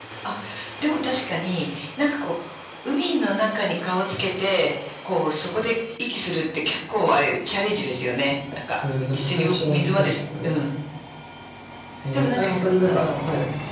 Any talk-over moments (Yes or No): Yes